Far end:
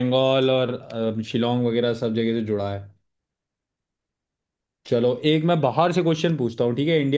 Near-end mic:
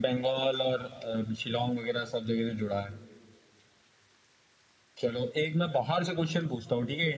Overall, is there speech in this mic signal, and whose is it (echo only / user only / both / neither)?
echo only